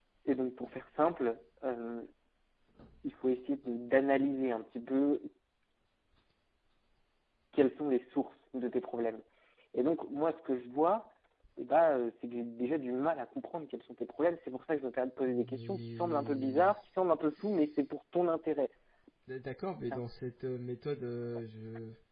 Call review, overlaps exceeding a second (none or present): present